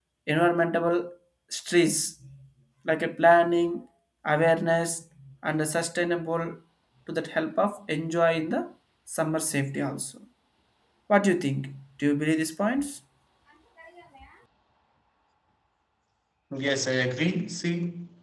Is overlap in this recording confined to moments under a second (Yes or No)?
Yes